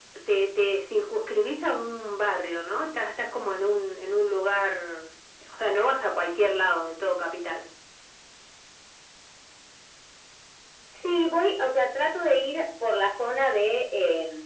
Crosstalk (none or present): none